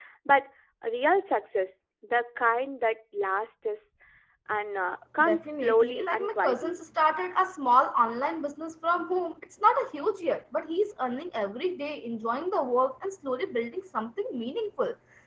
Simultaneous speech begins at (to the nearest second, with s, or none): 5 s